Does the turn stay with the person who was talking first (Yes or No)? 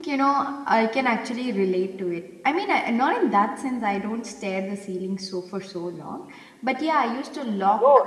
No